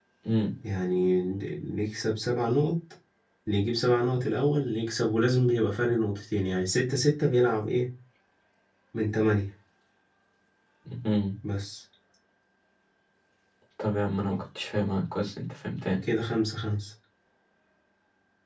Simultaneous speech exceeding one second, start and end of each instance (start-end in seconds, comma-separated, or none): none